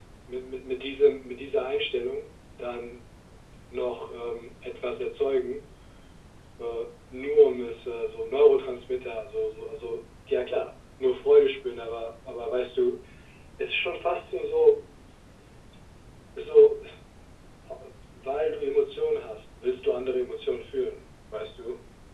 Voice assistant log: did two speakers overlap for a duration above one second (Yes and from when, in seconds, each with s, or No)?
No